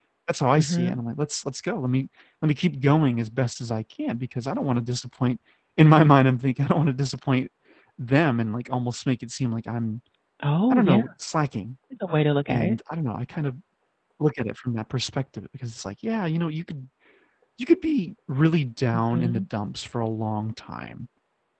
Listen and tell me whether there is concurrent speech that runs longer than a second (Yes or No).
No